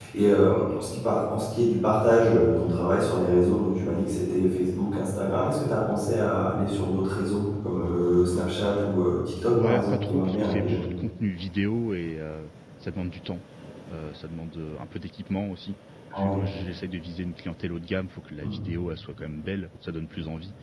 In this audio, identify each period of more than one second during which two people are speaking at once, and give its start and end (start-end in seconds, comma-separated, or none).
9.5-10.8